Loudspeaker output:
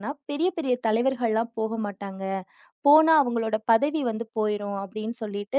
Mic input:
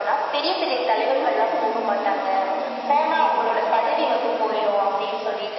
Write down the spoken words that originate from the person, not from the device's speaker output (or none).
அந்த பொன்னியின் செல்வன் வந்து அப்ப கொஞ்சம் ஹைப்ல இருந்துச்சு. கொஞ்சம் பிரபலமா.